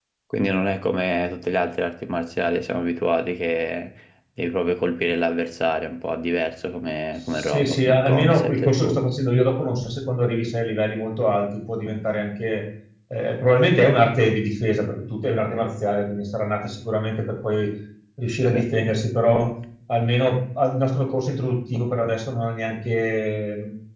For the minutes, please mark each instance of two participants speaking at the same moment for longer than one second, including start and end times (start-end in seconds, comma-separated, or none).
7.3-9.0